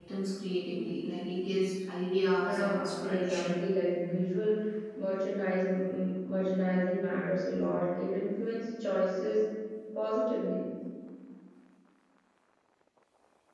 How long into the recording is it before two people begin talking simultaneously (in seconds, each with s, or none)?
2.4 s